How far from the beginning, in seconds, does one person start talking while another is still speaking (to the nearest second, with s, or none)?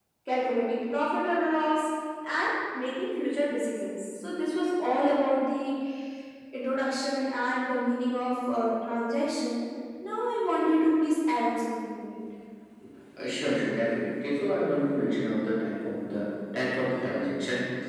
none